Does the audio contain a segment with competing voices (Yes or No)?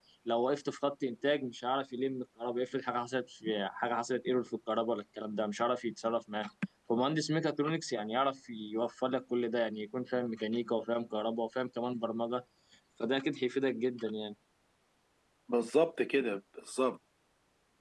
No